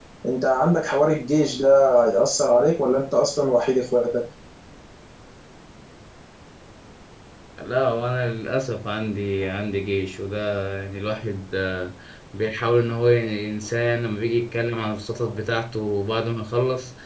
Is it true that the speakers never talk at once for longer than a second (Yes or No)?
Yes